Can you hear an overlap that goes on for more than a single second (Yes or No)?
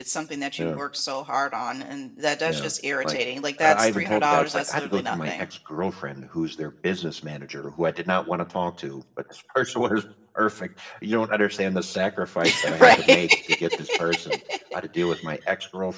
Yes